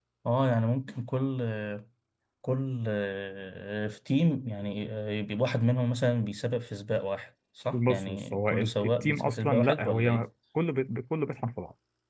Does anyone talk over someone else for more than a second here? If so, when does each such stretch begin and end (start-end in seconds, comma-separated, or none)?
7.7-10.3